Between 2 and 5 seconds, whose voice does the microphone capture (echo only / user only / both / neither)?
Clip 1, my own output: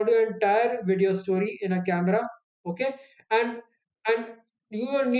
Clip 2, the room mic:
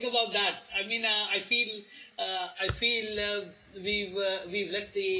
user only